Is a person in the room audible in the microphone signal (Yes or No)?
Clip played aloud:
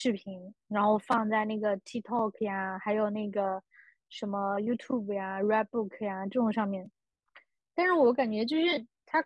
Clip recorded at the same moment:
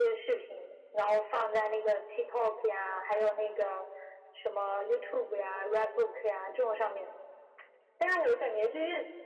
No